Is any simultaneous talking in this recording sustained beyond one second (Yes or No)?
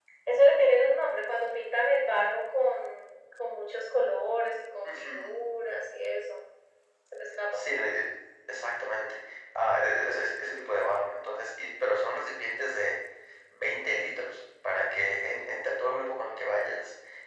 No